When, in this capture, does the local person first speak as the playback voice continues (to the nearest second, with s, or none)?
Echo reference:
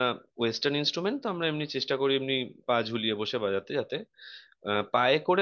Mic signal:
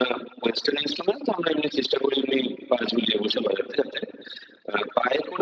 none